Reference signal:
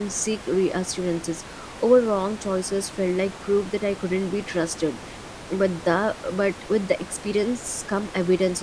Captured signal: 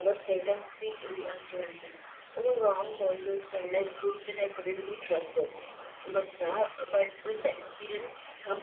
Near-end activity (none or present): none